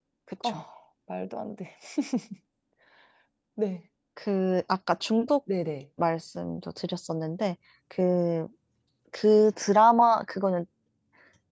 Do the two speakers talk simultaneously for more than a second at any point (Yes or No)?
No